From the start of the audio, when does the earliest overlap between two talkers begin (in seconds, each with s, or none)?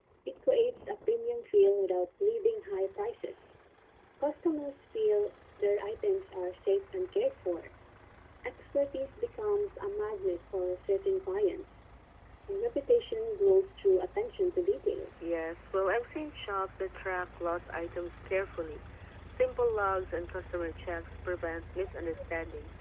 none